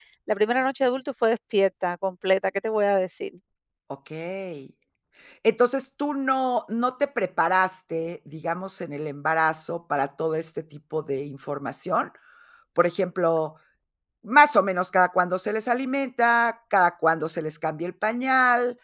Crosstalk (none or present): none